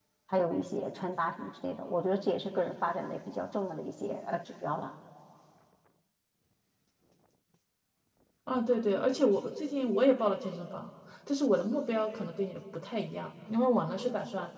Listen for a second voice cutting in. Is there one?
No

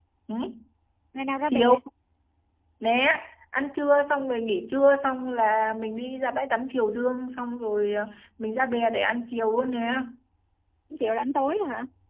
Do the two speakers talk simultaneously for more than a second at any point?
No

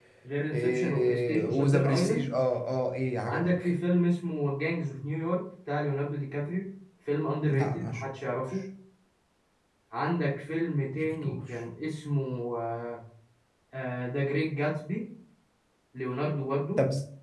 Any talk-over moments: Yes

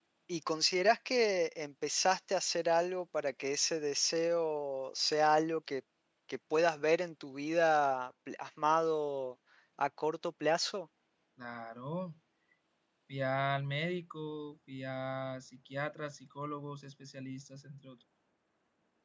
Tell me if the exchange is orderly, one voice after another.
Yes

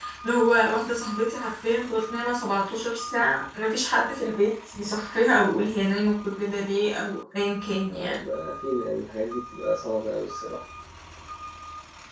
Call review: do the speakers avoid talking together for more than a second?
Yes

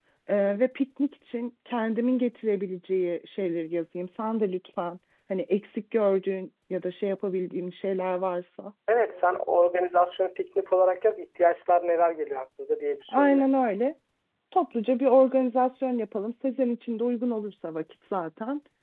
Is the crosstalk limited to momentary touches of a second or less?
Yes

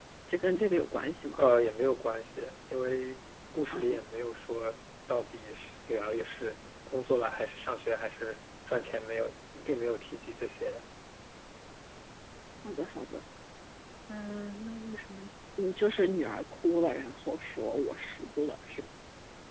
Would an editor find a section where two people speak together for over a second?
No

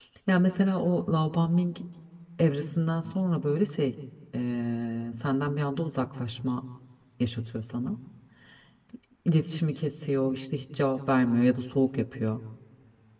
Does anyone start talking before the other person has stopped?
No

